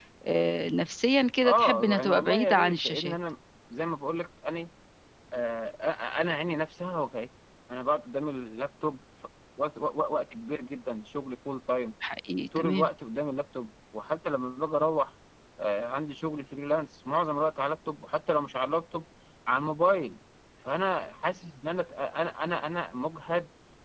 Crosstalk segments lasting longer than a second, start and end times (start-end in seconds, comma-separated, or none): 1.4-3.2